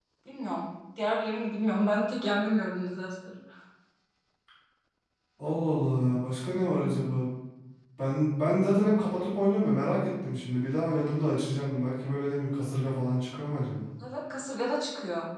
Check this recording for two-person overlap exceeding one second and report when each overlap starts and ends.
none

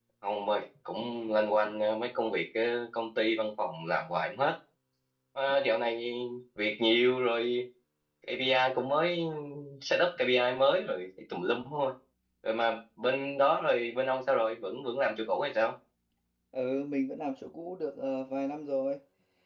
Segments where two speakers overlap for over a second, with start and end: none

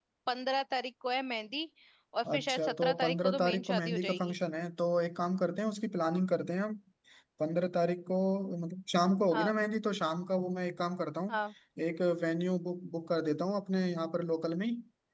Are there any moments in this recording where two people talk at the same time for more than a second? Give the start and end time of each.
2.3-4.3

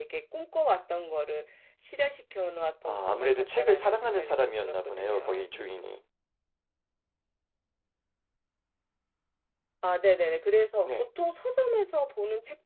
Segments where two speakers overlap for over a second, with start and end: 2.8-5.5

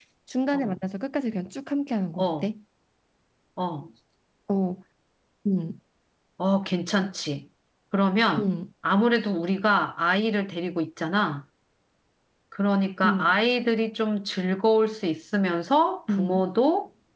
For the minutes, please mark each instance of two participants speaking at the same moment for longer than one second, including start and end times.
none

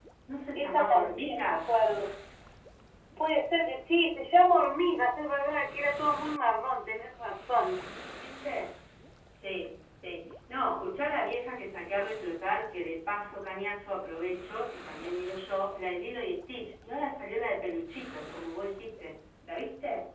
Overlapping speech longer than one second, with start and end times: 0.6-1.8

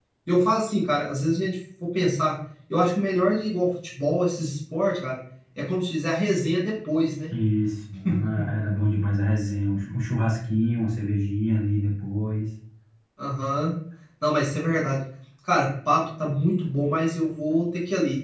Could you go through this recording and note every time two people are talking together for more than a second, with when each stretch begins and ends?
none

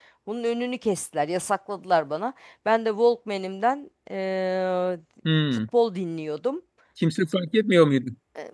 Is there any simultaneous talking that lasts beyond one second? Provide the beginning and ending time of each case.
none

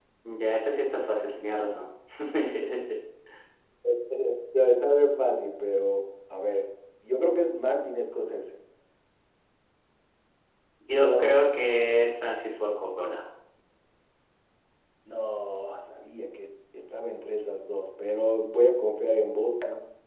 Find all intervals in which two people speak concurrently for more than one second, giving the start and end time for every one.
none

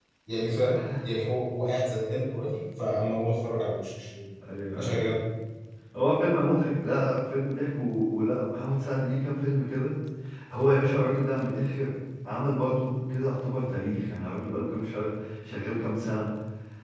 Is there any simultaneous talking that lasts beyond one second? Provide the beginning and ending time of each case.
none

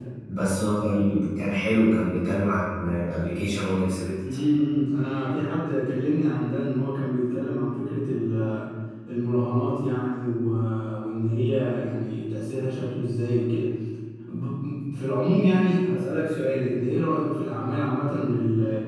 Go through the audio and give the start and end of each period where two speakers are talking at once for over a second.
none

